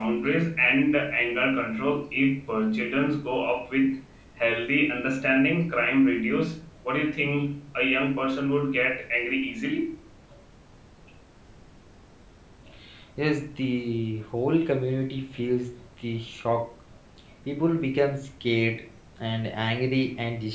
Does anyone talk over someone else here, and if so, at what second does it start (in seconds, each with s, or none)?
none